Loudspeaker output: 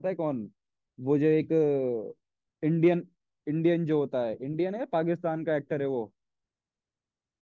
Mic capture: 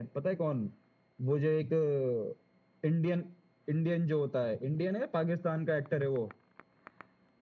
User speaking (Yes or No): No